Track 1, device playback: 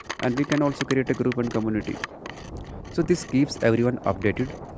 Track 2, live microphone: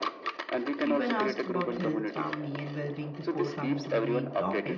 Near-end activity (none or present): present